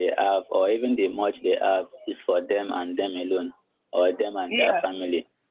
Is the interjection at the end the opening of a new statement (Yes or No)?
No